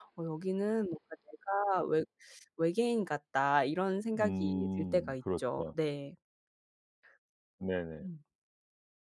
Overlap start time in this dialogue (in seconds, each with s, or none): 4.2 s